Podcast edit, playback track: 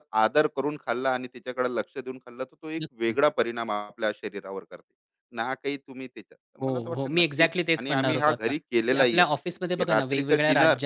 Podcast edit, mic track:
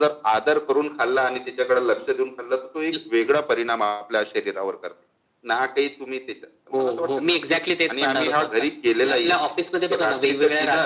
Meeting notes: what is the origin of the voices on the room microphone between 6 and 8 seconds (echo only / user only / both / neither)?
echo only